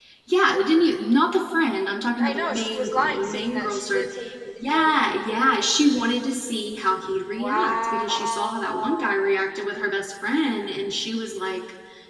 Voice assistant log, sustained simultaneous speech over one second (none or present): present